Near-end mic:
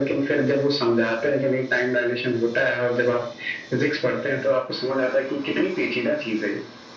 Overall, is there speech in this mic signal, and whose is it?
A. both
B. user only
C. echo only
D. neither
C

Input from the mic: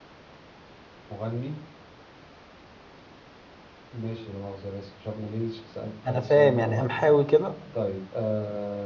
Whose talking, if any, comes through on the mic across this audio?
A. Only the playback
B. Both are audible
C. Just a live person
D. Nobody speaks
B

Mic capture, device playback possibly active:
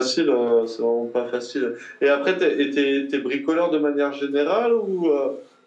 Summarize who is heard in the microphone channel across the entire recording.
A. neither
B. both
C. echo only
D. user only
C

